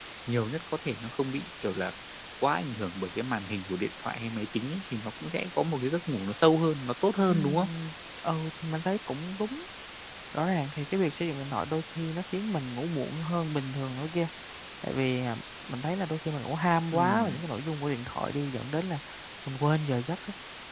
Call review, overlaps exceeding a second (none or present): none